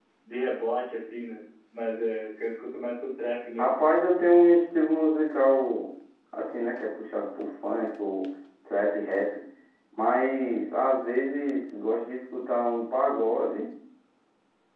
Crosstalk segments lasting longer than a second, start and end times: none

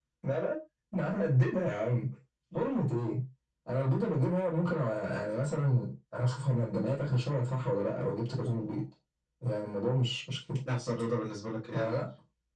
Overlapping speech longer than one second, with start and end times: none

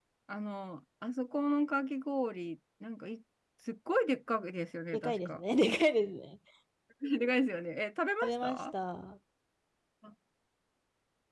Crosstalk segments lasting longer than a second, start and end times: none

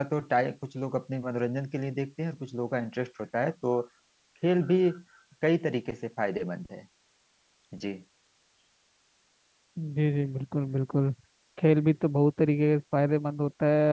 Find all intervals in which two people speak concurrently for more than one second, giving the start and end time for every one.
none

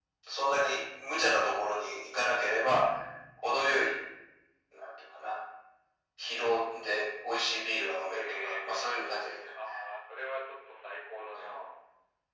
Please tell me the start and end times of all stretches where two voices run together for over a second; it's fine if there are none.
8.1-9.4

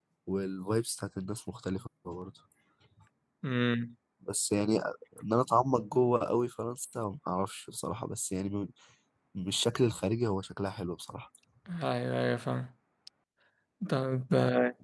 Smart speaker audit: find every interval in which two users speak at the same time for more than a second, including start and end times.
none

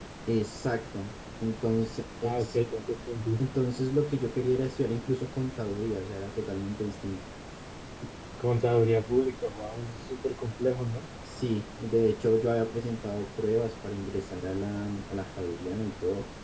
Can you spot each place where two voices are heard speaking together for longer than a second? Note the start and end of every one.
none

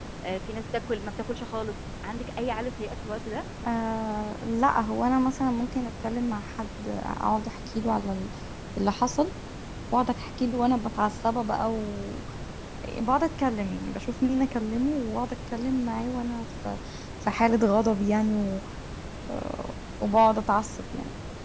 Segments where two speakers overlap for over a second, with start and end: none

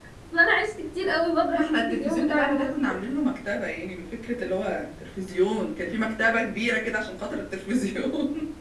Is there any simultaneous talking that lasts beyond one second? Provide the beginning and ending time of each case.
1.6-2.9

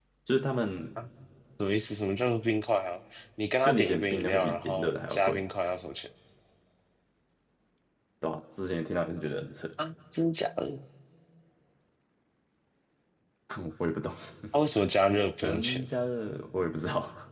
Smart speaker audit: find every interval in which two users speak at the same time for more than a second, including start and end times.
3.6-5.4

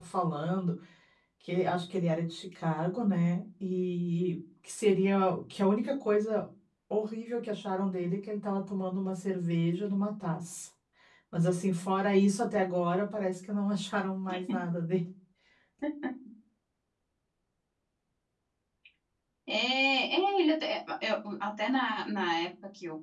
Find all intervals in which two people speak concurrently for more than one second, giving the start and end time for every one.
none

